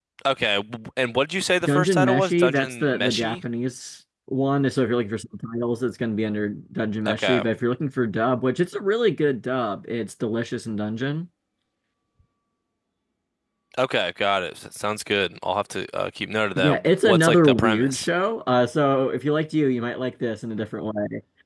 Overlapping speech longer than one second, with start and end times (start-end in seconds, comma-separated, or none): 1.6-3.4, 16.6-18.1